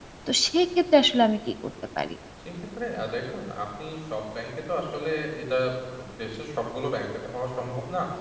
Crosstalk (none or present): none